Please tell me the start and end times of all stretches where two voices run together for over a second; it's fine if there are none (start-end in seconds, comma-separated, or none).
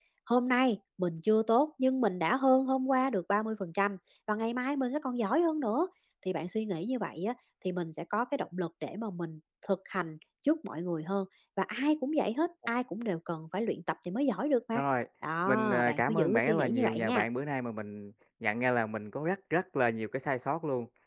15.5-17.2